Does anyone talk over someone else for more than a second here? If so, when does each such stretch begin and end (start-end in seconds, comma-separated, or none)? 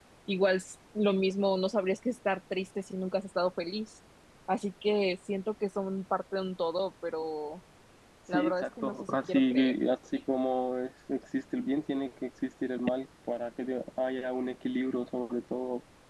8.3-9.5